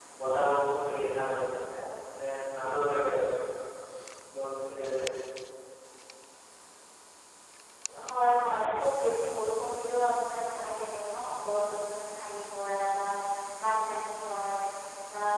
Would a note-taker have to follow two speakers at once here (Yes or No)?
No